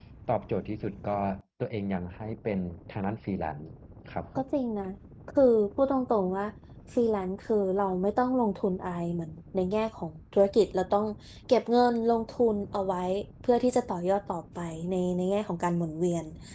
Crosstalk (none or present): none